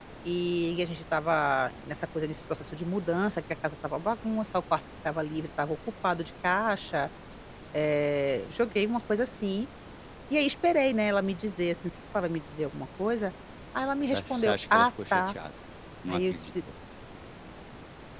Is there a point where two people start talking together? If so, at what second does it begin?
14.1 s

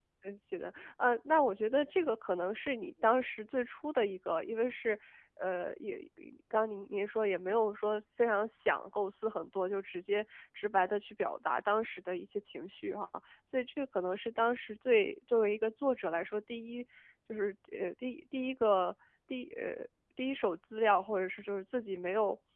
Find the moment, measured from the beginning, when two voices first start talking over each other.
none

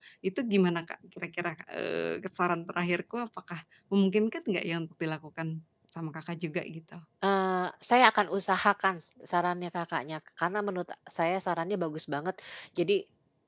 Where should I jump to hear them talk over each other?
none

